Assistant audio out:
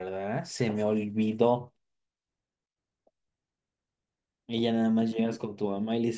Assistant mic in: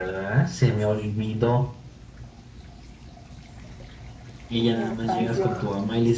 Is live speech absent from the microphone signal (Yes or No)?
No